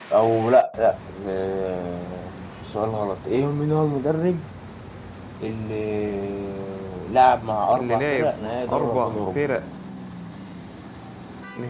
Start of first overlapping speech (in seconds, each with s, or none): 7.7 s